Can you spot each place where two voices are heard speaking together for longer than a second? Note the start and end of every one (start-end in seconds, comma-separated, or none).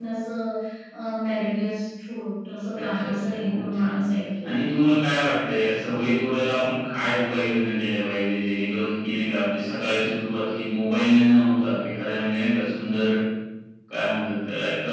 2.8-4.0